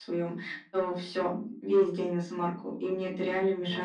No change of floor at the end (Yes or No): Yes